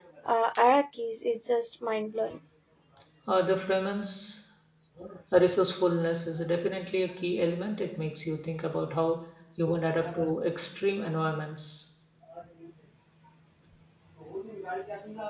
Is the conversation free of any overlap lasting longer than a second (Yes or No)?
Yes